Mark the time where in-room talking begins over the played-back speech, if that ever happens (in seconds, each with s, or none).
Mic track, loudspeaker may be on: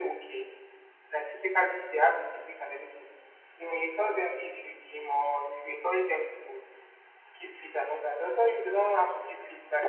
none